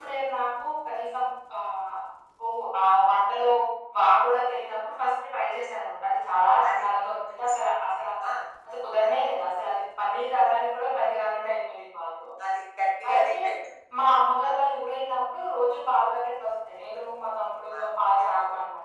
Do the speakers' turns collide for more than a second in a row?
No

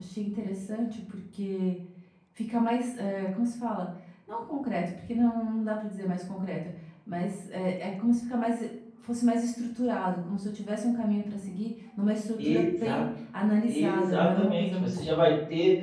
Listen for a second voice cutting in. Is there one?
Yes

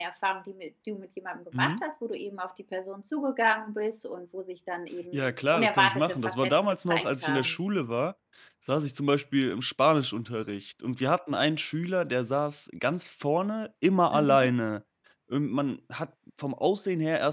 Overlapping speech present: Yes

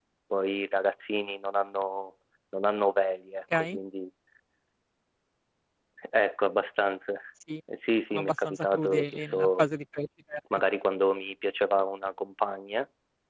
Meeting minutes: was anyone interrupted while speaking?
Yes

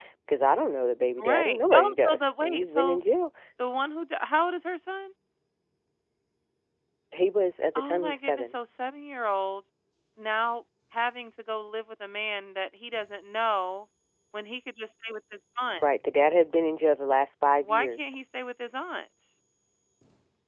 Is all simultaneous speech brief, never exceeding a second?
No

